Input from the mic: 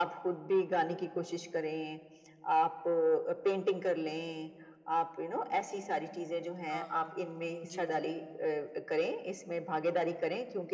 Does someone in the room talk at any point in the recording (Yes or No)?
Yes